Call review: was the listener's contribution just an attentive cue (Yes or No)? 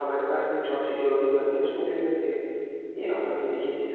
No